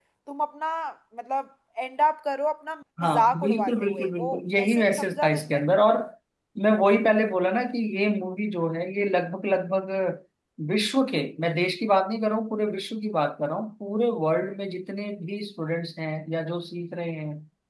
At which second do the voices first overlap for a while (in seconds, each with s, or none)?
3.0 s